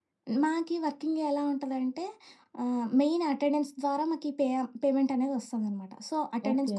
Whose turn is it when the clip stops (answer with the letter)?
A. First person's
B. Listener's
A